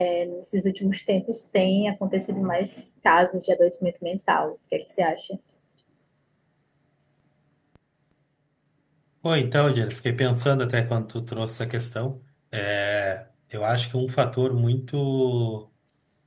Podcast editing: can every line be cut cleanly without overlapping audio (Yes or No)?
Yes